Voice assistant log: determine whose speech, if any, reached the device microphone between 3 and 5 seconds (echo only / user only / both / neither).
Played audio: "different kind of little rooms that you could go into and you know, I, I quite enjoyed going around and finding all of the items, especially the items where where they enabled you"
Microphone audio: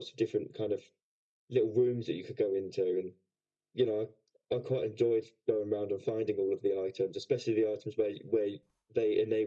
echo only